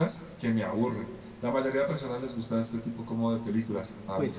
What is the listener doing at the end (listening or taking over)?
taking over